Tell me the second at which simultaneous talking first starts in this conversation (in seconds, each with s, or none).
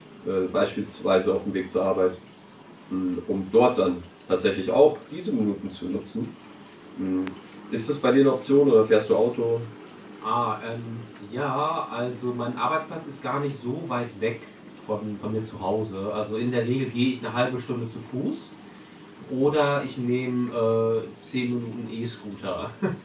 none